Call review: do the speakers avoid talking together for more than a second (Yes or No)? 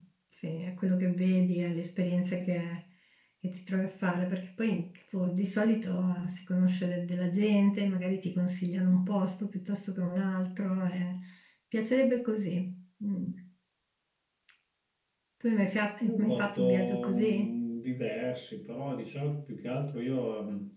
No